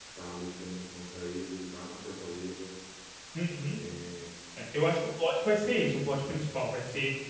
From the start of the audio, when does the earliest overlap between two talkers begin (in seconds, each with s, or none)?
none